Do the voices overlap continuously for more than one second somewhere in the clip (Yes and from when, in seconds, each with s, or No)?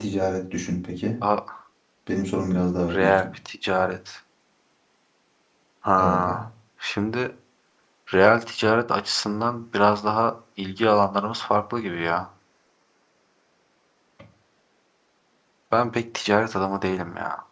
No